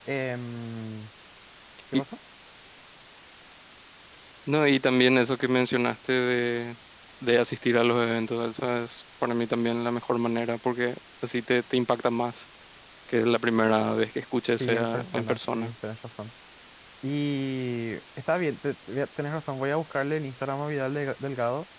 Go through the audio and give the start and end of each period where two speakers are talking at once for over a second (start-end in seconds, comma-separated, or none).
14.5-15.7